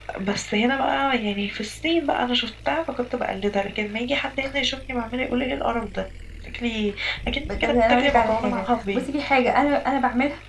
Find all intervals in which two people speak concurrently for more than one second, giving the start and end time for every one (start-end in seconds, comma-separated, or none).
7.5-9.1